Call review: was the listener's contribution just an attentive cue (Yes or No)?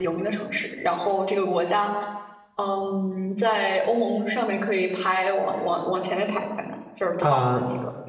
No